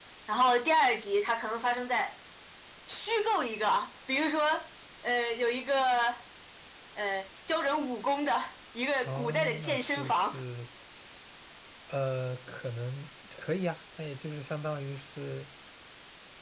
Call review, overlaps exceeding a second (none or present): present